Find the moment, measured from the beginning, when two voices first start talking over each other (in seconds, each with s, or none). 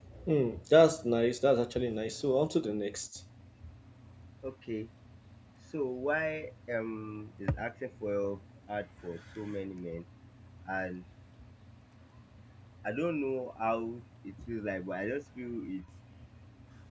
none